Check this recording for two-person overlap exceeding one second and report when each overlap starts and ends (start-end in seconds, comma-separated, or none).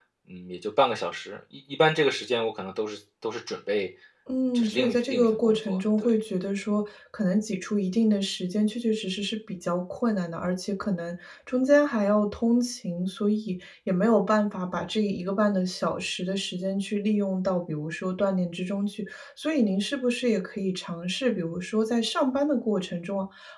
4.5-6.2